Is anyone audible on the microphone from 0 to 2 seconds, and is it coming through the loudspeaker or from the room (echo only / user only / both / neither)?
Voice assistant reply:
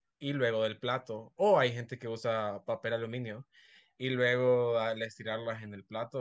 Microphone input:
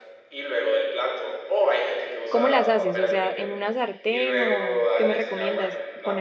echo only